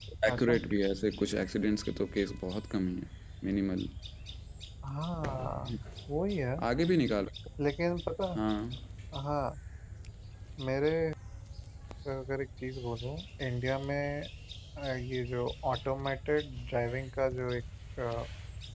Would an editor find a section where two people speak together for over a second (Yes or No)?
No